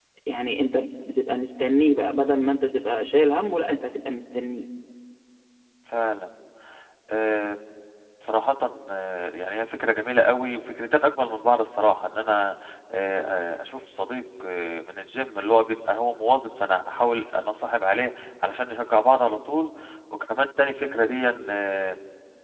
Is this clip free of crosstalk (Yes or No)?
Yes